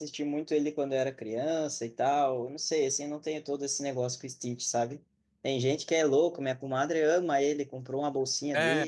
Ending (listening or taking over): listening